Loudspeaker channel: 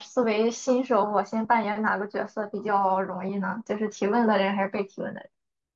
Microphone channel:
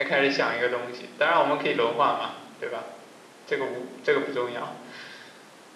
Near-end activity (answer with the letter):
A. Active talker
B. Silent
A